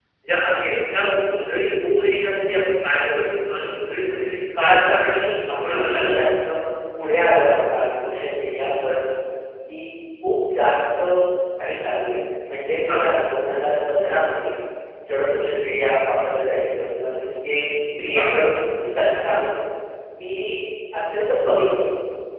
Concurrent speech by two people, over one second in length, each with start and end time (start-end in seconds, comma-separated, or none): 4.5-6.1